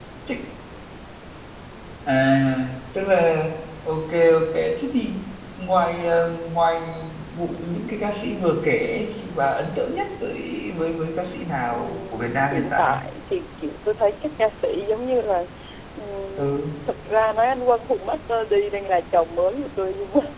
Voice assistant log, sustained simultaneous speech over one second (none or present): present